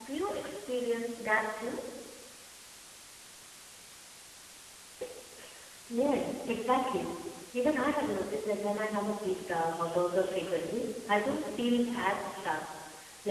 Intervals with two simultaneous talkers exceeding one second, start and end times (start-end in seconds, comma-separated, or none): none